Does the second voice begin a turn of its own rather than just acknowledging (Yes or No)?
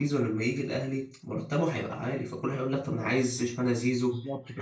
Yes